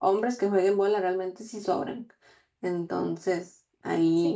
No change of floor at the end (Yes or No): No